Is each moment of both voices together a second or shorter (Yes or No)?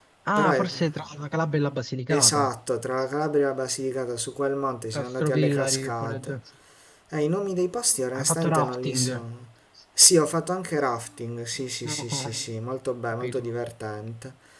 No